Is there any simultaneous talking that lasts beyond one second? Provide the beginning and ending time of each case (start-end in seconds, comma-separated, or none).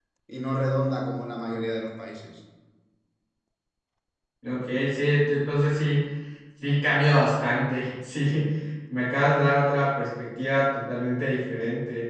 none